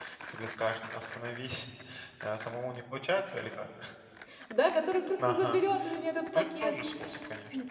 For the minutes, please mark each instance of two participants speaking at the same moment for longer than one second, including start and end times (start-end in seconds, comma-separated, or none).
none